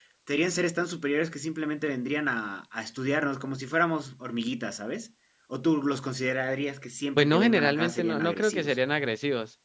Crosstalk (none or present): present